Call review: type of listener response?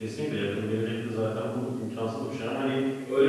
taking over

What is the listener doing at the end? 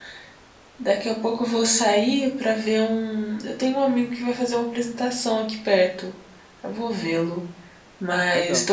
listening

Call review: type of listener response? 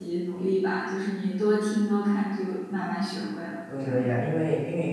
taking over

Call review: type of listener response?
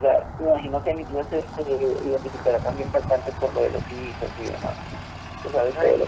listening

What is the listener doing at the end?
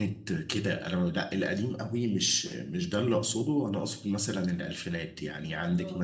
listening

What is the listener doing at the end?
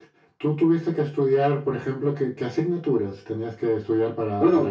taking over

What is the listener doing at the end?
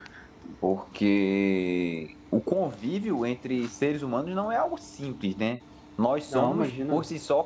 listening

